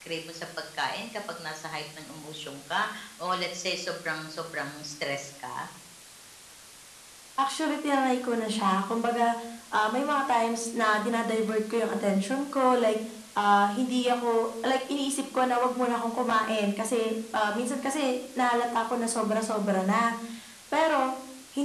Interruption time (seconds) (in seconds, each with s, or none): none